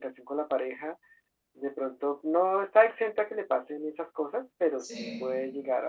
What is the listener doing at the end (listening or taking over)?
listening